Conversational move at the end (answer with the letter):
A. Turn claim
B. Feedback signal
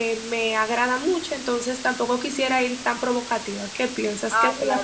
A